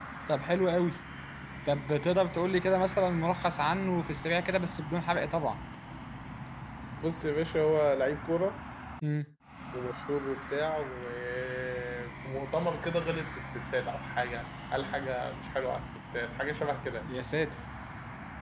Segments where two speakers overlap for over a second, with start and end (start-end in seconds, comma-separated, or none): none